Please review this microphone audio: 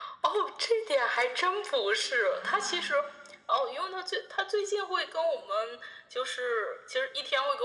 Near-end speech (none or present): present